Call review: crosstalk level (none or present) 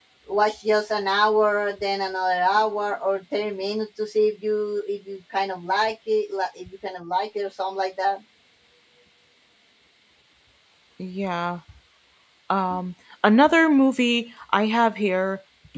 none